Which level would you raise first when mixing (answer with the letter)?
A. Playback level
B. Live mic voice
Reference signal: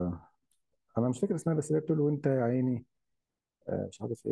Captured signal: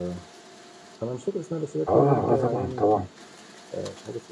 A